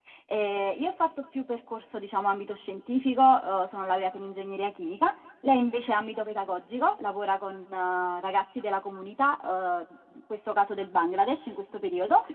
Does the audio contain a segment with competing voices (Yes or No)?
No